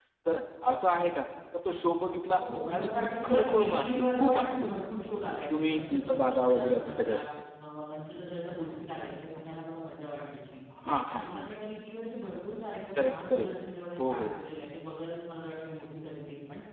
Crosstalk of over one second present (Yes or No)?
Yes